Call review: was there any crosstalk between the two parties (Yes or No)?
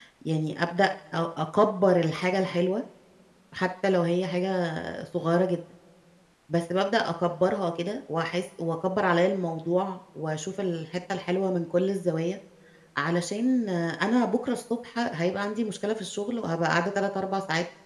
No